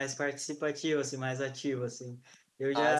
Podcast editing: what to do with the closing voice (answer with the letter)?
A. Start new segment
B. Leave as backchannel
B